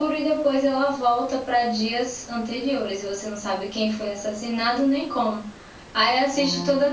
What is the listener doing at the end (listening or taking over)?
listening